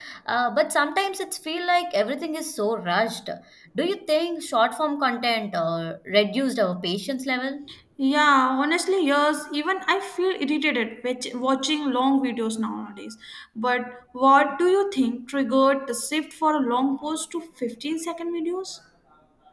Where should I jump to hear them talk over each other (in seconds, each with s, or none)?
none